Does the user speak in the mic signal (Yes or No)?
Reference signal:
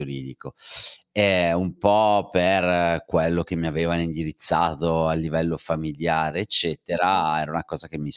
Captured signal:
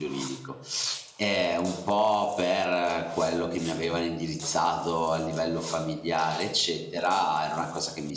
No